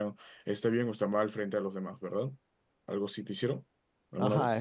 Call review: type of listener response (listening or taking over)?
taking over